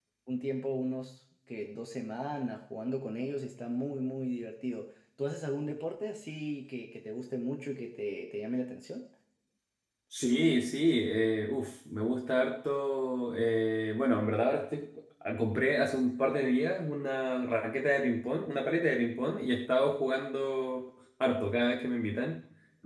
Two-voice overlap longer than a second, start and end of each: none

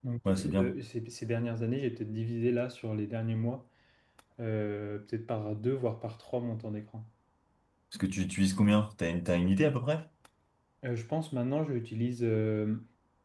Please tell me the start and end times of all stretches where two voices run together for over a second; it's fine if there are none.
none

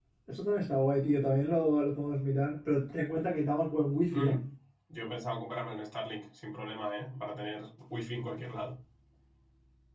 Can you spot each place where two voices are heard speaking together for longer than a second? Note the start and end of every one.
none

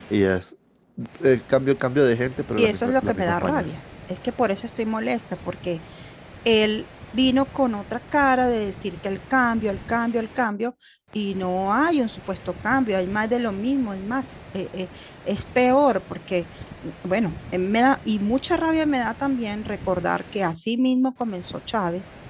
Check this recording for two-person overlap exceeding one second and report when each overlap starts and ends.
2.6-3.8

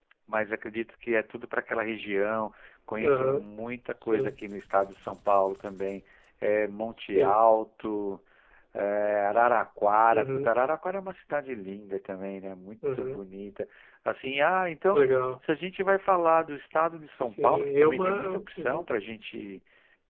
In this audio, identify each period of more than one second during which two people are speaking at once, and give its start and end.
17.1-18.9

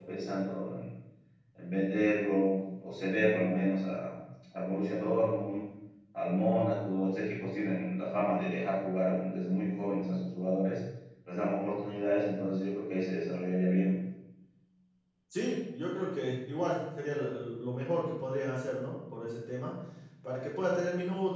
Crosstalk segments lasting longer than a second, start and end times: none

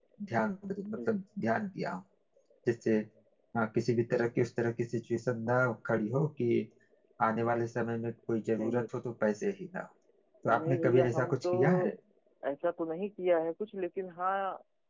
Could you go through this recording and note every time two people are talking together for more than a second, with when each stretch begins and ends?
10.5-11.9

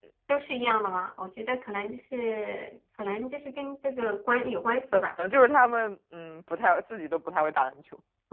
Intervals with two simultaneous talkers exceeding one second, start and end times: none

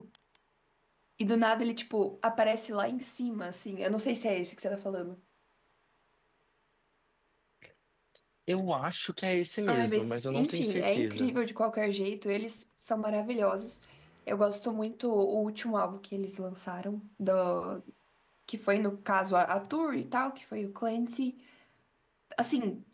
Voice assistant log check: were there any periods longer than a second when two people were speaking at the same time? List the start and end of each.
9.7-11.3

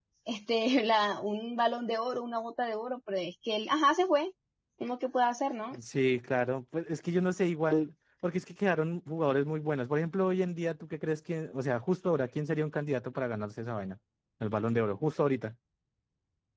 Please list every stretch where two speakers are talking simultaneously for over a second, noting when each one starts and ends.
none

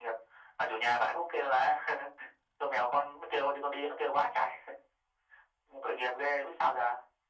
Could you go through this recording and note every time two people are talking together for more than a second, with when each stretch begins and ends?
none

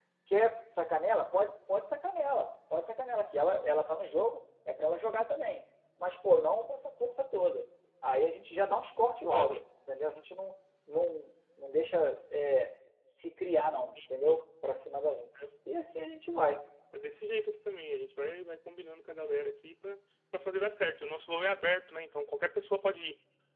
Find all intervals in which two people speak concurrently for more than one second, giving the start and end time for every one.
none

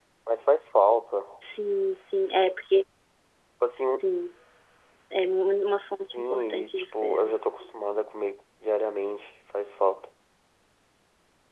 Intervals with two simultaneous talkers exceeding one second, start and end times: 6.1-7.3

